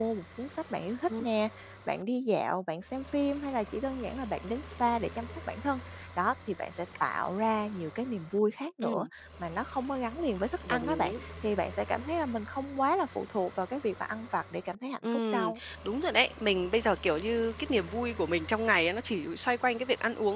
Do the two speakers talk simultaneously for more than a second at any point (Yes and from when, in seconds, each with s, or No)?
No